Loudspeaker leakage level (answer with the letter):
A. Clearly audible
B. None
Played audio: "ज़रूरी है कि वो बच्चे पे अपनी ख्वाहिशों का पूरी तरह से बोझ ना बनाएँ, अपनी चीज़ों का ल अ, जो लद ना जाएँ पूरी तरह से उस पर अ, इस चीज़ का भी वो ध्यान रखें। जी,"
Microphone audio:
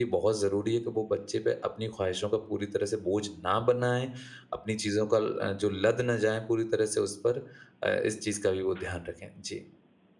A